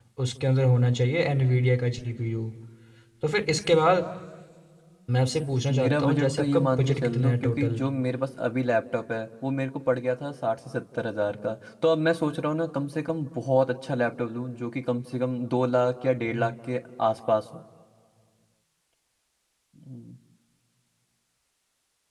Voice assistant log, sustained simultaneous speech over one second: present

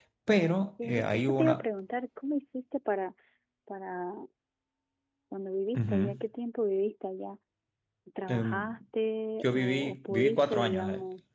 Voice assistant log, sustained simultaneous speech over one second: present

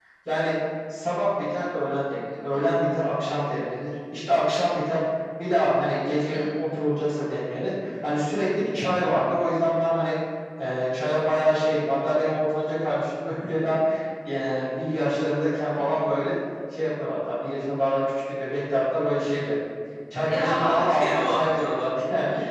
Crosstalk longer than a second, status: present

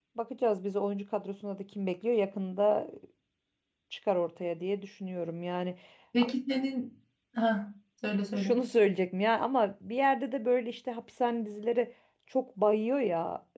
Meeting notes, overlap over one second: none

